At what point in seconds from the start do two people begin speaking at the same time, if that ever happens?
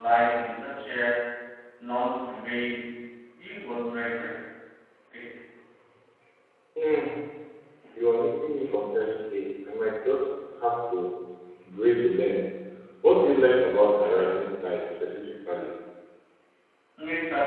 none

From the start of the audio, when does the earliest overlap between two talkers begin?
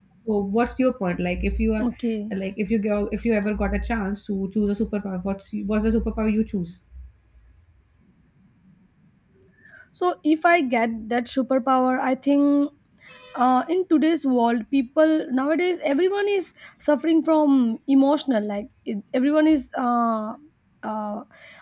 none

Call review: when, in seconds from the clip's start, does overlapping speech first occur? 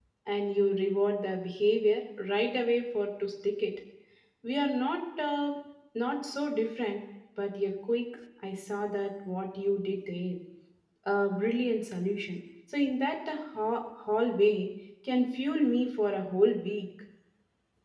none

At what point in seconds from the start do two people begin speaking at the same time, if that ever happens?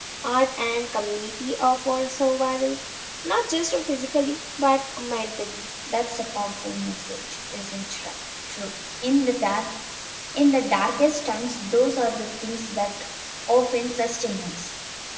none

